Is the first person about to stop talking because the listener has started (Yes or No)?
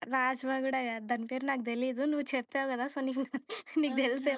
Yes